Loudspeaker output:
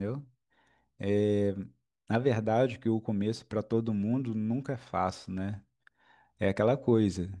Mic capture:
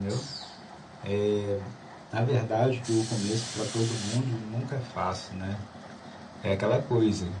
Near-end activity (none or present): none